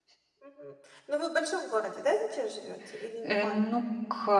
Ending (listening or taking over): taking over